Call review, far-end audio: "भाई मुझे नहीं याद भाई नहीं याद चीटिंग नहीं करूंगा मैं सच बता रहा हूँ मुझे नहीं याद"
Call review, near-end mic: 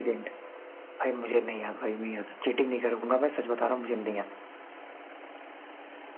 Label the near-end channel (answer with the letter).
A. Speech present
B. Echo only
B